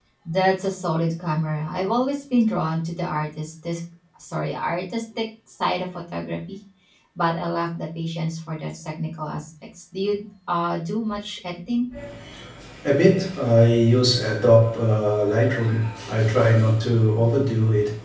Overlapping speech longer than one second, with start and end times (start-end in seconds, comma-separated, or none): none